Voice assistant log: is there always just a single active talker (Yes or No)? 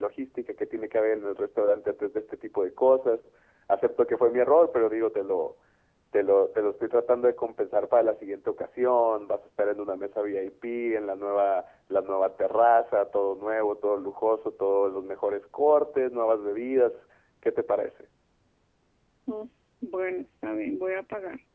Yes